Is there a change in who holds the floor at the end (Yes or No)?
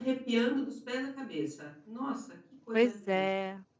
Yes